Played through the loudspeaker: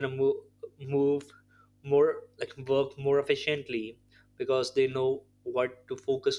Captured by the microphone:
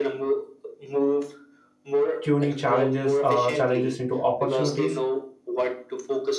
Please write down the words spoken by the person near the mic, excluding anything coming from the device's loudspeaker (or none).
tuning challenges uh, challenges into opportunities